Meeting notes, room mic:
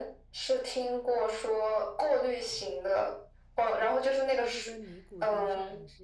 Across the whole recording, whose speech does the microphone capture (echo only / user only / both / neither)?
both